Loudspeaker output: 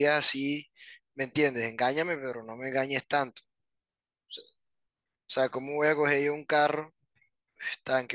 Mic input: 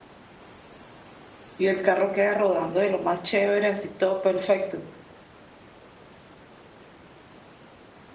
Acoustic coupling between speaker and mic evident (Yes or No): No